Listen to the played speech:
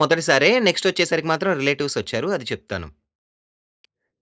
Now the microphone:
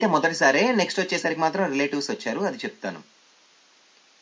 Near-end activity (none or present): none